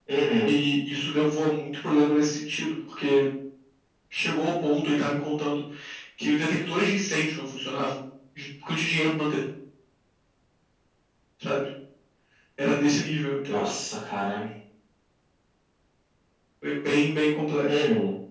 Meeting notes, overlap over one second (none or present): none